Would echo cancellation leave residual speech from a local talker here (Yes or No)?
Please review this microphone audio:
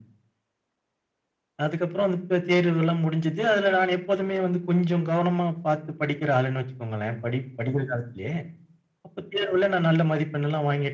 No